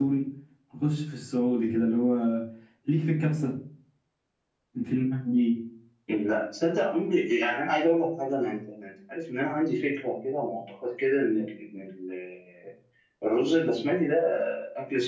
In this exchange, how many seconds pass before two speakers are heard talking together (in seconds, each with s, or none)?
none